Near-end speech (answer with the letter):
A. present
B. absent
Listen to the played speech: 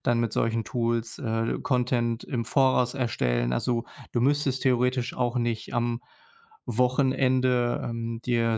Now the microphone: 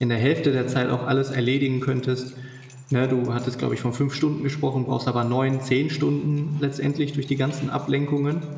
A